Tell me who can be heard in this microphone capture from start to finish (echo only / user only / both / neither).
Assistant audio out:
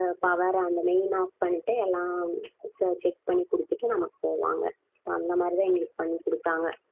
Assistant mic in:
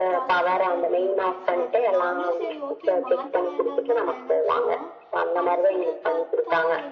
both